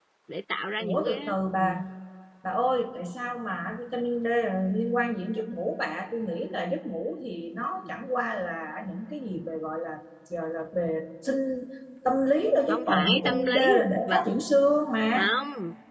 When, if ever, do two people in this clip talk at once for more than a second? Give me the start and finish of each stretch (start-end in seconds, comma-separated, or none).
12.7-14.3